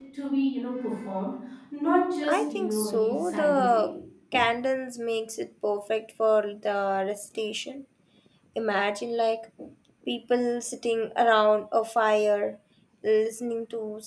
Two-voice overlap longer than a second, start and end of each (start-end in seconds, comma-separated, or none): 2.3-3.9